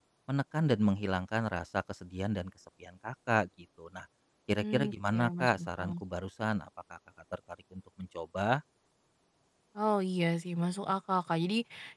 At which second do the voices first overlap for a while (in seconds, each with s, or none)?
4.6 s